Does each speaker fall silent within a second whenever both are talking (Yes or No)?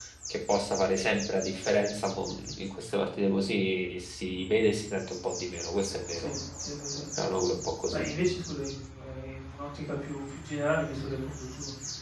Yes